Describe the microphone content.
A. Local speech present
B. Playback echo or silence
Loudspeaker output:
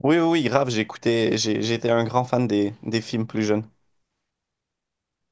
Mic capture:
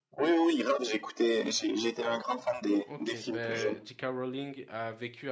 A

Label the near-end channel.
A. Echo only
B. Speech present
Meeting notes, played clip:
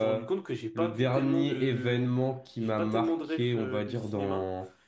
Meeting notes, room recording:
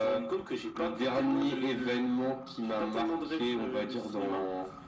A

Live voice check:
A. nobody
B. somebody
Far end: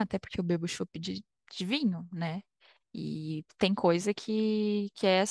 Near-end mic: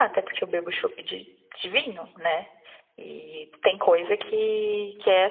A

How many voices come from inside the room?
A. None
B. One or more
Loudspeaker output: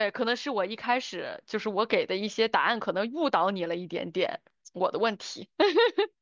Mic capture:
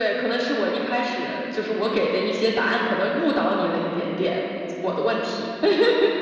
A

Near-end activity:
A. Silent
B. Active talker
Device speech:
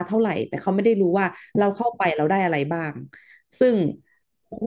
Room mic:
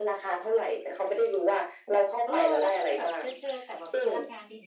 B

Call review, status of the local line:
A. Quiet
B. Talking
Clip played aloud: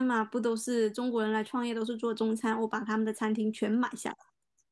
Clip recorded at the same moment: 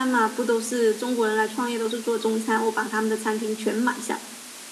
A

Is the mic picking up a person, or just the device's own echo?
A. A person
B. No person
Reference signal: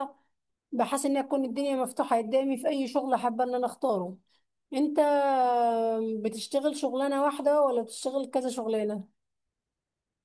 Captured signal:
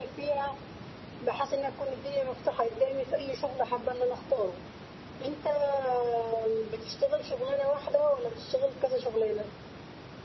B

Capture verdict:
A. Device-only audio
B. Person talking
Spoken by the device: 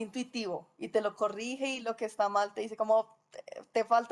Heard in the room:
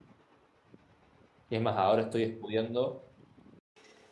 B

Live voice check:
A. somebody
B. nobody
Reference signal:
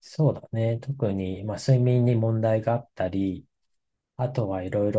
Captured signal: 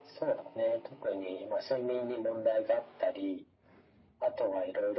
B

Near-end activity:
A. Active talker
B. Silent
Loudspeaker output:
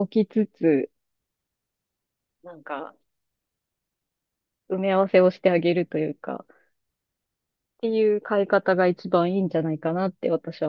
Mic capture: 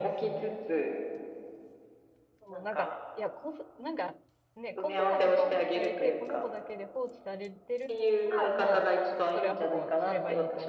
A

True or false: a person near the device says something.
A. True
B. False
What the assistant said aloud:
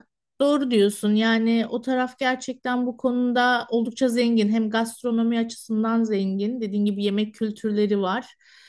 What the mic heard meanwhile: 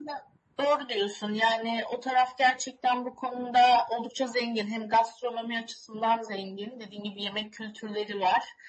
B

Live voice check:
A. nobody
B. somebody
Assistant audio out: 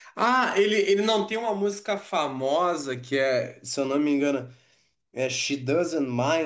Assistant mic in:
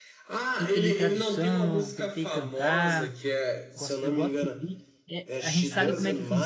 B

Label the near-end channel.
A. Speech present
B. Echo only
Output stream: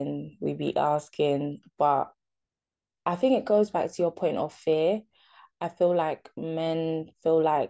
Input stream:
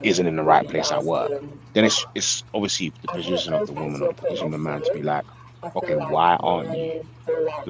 A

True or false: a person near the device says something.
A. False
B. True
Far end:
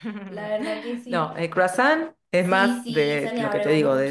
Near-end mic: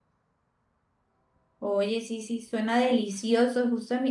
B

